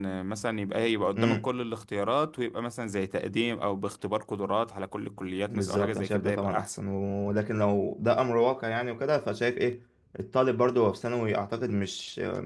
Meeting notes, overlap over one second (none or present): present